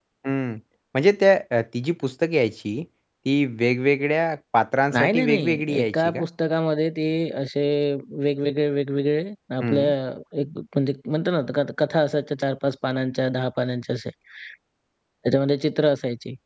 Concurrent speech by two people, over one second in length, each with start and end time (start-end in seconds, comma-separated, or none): 4.9-6.2